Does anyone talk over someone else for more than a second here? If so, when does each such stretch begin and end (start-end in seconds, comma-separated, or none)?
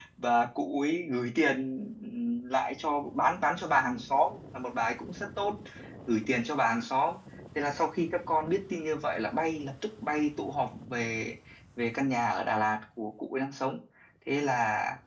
none